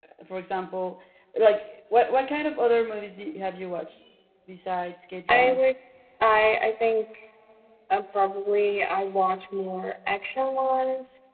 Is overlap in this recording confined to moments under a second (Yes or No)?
Yes